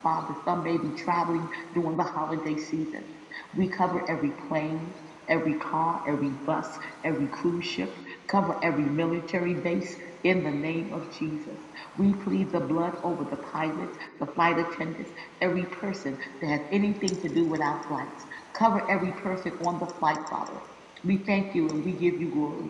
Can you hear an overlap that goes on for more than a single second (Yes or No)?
No